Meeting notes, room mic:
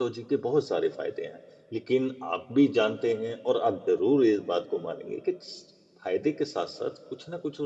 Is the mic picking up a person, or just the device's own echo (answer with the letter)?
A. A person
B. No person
A